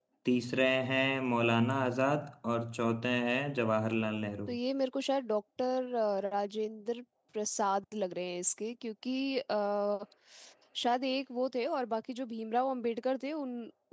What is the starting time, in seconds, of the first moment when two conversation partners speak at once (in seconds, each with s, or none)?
none